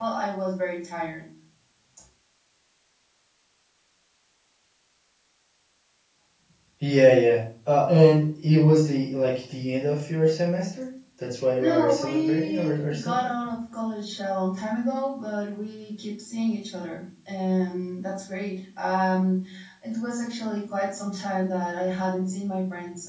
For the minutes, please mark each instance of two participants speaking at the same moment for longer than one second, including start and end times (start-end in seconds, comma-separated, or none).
11.6-13.2